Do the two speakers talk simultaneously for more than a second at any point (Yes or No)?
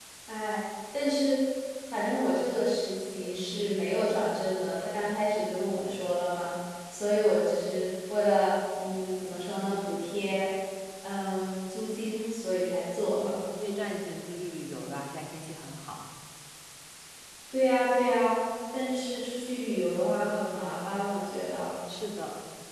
No